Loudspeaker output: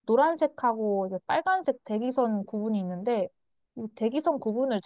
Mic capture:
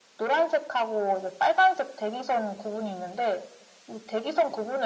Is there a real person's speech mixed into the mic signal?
No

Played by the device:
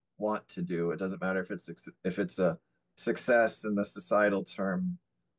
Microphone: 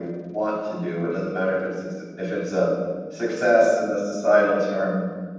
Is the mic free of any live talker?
Yes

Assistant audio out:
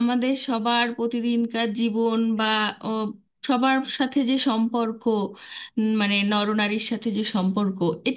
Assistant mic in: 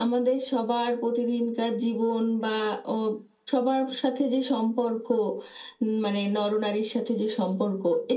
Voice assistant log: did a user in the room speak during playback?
No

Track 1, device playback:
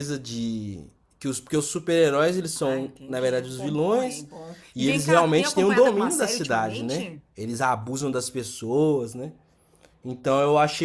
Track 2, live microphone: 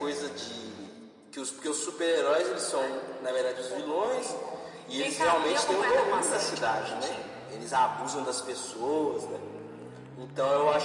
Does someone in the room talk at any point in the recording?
No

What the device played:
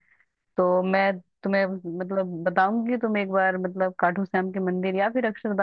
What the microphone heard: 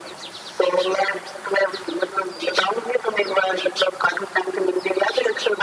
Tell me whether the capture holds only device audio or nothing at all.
Yes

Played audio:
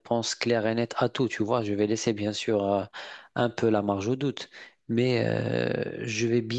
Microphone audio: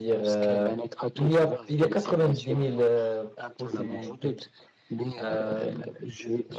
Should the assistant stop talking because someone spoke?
Yes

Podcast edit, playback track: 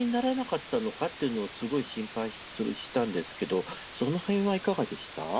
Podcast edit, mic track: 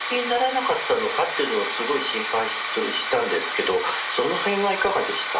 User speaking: No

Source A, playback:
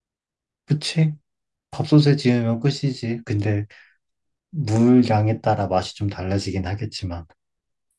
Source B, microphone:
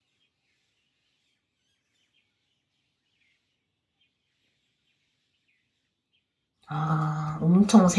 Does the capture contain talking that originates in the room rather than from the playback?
Yes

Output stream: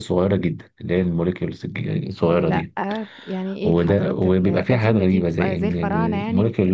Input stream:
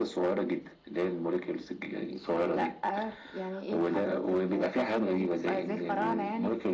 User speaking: No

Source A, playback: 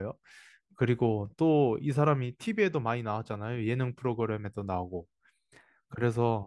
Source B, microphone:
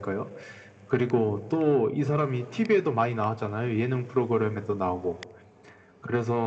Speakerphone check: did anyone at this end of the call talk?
No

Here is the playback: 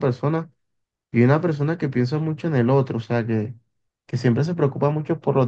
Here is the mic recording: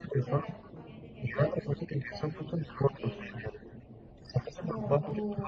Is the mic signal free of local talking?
No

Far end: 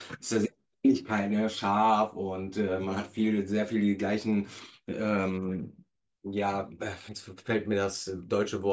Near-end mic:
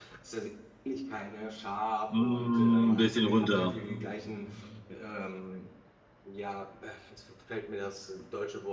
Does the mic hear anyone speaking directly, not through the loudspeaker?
Yes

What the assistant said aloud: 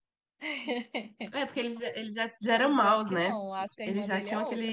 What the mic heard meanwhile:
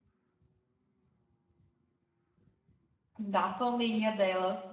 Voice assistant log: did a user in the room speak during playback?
Yes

